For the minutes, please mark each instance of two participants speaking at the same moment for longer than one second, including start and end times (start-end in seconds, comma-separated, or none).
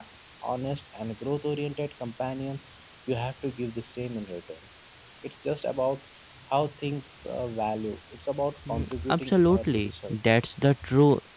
8.7-10.2